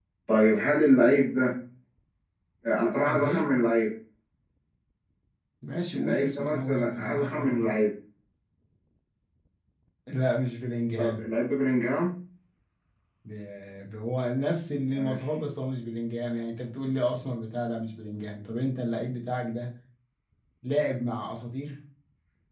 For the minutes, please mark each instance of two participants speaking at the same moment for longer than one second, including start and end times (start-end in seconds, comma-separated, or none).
5.9-7.7